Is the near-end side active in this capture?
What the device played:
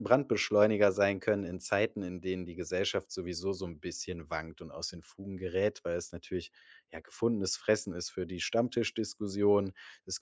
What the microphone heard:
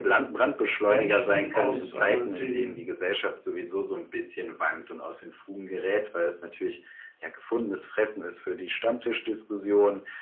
Yes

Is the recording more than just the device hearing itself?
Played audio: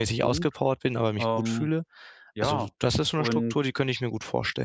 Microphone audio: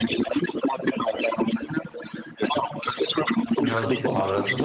Yes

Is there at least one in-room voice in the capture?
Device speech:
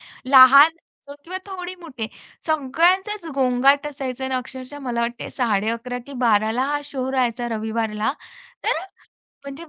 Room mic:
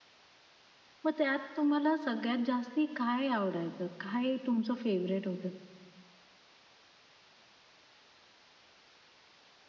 Yes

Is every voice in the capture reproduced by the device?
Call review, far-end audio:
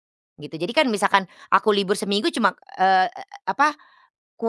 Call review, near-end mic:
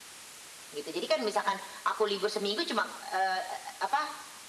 Yes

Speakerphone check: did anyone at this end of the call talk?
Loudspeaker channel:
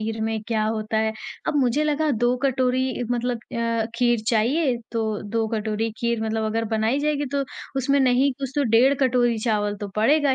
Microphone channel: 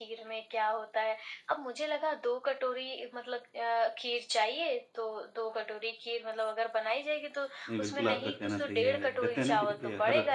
Yes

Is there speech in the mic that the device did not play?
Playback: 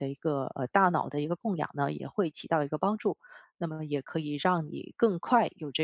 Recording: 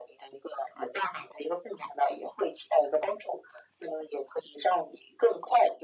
No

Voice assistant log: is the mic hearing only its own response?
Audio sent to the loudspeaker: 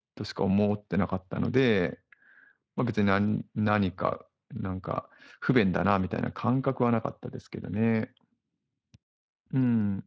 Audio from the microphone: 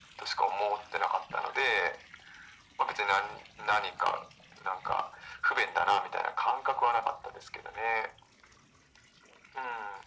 Yes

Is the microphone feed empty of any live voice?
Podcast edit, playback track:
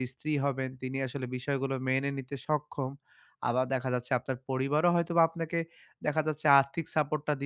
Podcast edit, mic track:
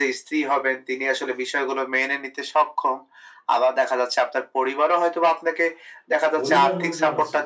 No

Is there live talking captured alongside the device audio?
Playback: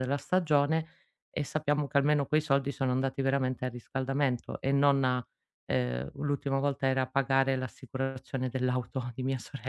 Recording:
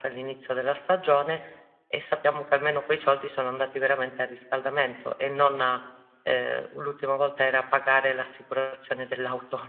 No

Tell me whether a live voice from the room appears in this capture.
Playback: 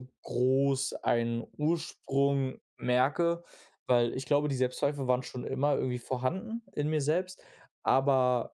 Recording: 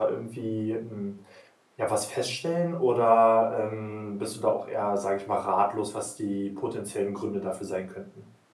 Yes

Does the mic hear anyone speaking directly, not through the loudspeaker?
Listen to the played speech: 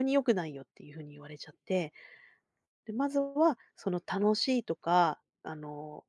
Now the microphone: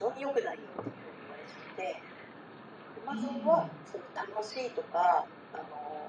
Yes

